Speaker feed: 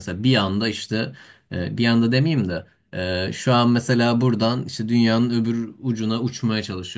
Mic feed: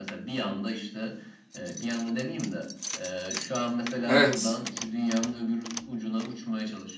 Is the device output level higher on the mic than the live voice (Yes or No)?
No